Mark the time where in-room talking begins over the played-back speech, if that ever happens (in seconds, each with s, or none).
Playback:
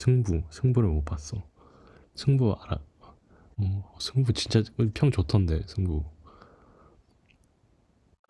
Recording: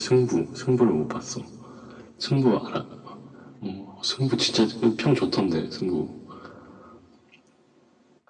none